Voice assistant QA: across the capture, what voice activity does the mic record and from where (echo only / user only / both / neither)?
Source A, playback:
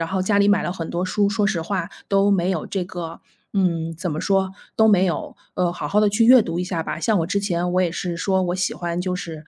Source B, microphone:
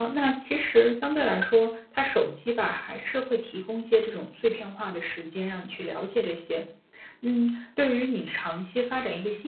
user only